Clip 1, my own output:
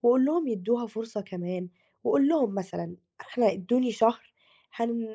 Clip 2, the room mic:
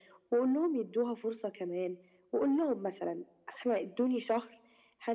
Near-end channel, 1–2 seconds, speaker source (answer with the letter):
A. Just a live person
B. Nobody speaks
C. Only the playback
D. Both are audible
C